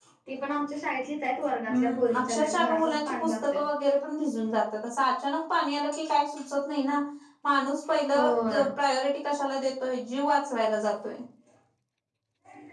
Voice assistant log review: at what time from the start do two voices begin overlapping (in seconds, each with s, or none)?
1.7 s